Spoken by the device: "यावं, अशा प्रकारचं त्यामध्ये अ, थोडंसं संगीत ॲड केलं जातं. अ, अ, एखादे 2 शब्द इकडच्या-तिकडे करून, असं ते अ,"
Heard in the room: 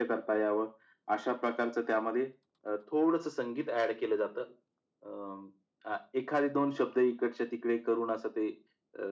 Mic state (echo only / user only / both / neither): echo only